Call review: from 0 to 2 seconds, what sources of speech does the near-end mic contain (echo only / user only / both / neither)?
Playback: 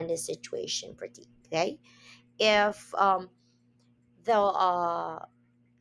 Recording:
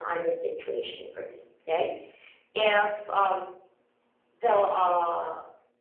echo only